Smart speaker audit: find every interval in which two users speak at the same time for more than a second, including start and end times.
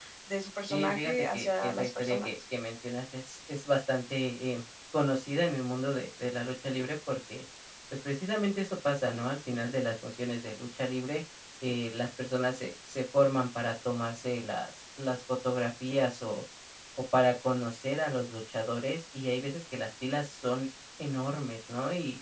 0.7-2.3

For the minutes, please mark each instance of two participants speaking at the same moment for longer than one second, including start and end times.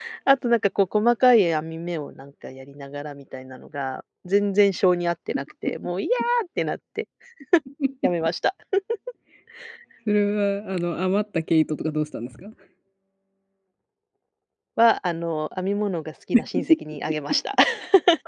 none

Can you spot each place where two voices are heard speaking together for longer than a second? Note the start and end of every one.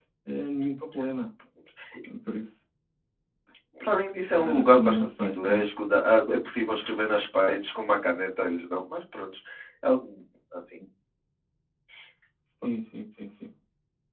4.4-5.6

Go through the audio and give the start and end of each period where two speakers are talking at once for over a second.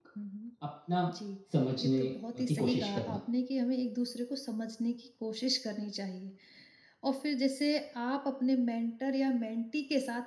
1.8-3.2

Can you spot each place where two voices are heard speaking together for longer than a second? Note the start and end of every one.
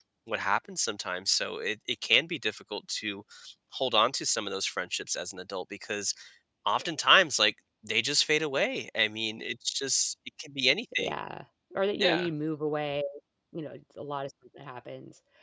none

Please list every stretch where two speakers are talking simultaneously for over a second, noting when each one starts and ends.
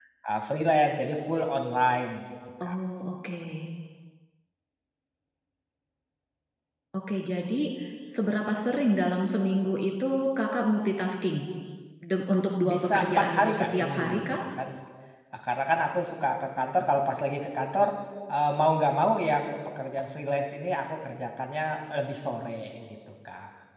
12.6-14.4

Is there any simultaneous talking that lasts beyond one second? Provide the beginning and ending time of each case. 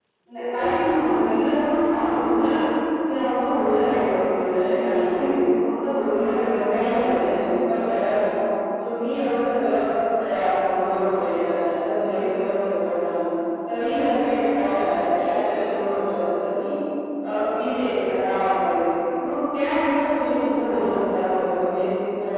none

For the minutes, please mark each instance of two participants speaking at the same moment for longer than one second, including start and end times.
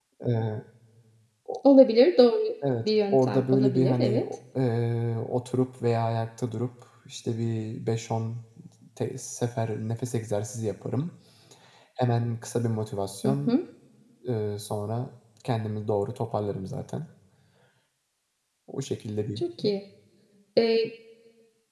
2.9-4.2

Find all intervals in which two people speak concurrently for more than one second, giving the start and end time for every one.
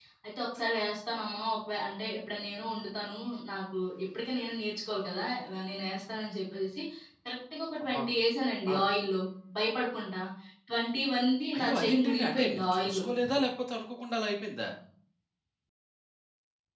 11.6-13.0

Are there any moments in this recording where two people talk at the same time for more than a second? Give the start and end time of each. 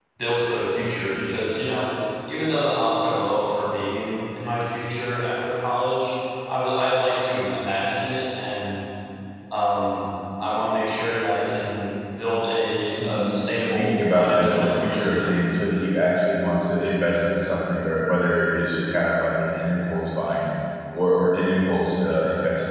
13.8-15.3

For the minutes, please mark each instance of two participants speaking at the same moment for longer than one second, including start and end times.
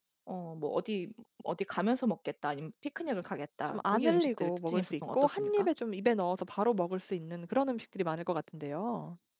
3.7-5.7

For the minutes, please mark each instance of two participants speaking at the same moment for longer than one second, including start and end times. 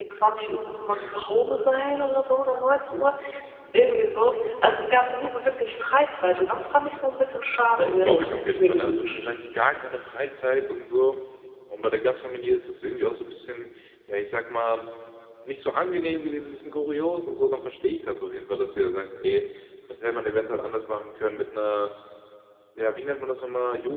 7.9-9.2

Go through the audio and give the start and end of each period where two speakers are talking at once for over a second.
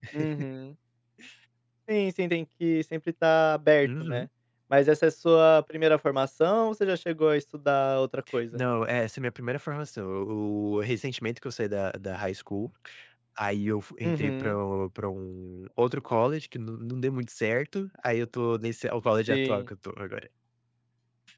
none

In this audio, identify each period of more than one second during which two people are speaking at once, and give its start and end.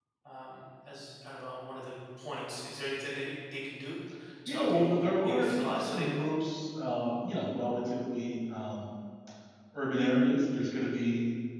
4.5-6.1

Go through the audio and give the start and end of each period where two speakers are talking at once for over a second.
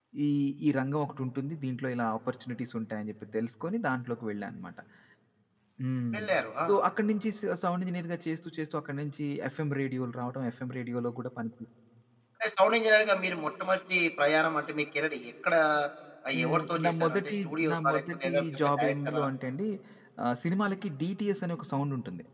16.3-19.2

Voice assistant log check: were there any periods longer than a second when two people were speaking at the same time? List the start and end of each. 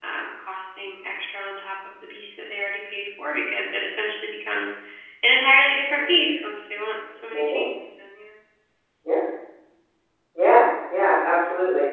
none

